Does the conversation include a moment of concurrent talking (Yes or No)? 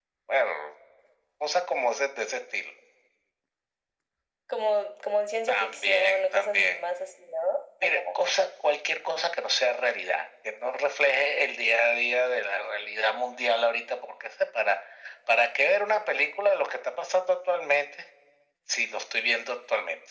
Yes